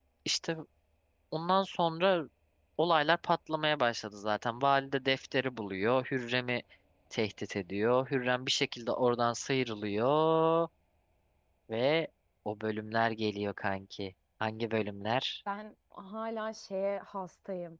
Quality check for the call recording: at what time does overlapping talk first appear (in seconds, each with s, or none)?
none